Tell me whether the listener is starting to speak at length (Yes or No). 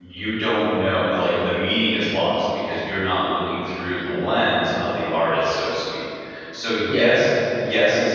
No